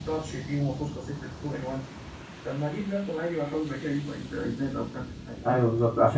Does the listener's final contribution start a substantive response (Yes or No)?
Yes